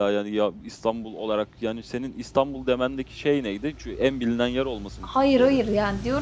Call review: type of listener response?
taking over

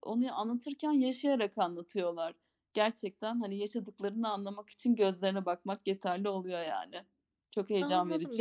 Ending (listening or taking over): taking over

